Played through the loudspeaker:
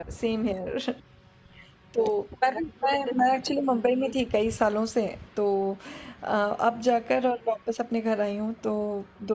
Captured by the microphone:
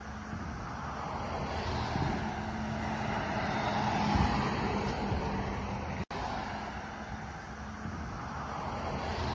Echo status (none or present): none